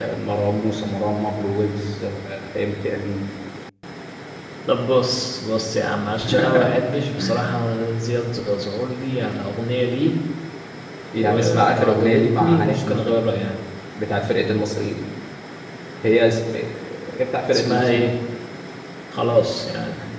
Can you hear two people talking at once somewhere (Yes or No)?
Yes